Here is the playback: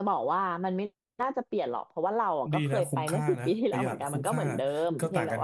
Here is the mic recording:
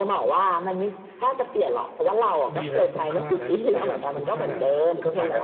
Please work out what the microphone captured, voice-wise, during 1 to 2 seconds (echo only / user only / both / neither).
echo only